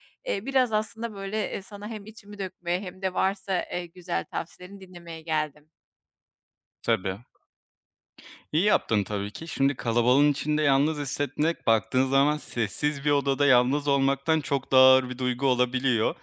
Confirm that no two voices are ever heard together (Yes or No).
Yes